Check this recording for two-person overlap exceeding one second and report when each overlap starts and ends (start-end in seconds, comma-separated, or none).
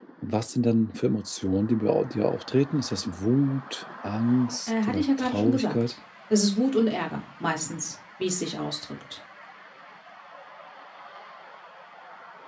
4.7-5.9